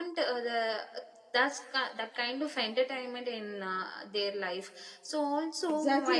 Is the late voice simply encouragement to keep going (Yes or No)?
No